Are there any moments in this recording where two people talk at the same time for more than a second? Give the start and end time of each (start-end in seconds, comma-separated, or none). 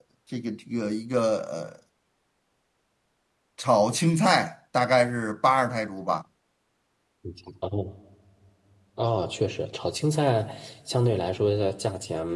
none